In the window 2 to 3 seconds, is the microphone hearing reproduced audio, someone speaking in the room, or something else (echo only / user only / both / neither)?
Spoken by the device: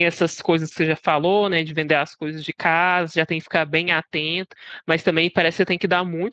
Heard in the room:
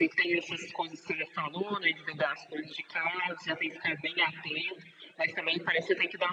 echo only